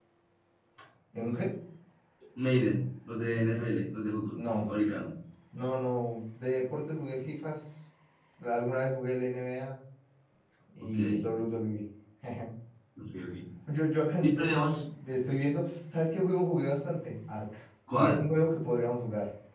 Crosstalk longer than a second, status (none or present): none